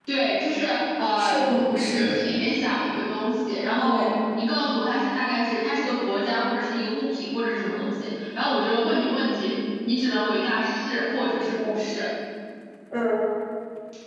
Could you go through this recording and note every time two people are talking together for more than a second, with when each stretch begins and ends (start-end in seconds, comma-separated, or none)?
none